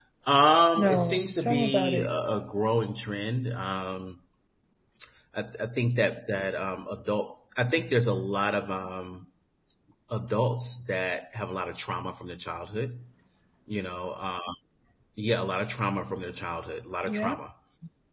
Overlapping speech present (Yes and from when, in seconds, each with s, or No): Yes, from 0.8 s